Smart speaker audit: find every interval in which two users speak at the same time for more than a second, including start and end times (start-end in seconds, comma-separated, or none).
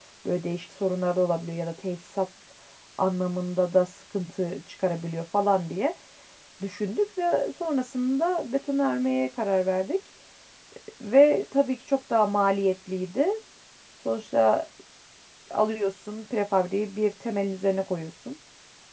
none